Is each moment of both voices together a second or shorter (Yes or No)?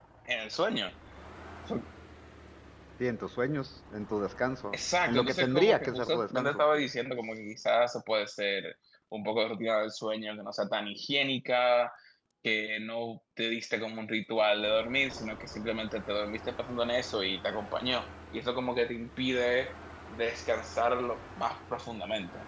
No